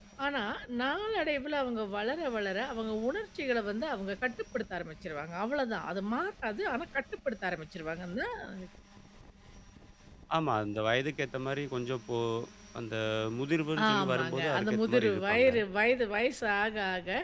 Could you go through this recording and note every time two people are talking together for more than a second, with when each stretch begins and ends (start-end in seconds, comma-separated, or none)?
13.9-15.5